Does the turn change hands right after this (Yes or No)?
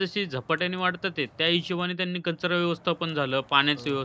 No